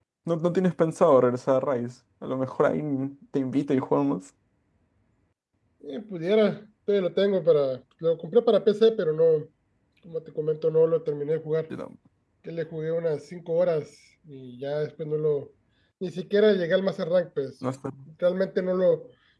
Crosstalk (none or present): none